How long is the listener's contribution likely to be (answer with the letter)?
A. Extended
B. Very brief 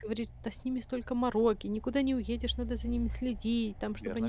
B